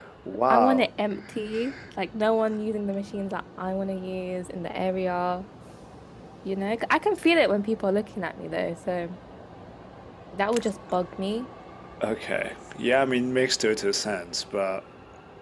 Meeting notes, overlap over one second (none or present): none